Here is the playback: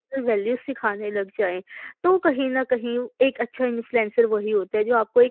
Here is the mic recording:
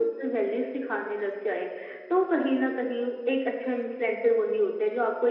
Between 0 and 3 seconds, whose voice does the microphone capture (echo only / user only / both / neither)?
echo only